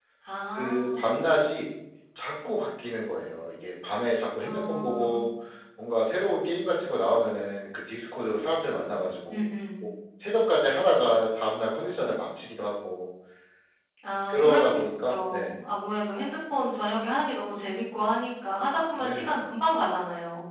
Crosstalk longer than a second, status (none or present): present